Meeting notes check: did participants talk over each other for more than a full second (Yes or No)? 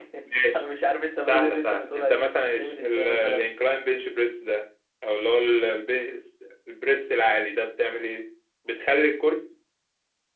Yes